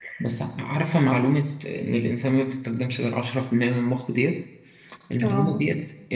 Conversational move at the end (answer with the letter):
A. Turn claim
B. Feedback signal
B